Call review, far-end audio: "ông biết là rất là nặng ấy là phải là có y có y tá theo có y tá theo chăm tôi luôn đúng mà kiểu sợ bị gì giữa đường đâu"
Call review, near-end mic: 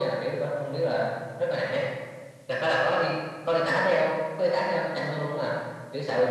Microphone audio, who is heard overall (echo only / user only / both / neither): echo only